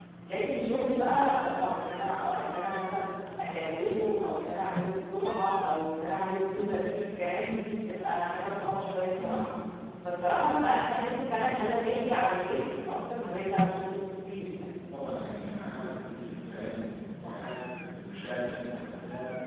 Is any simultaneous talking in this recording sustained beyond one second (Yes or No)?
No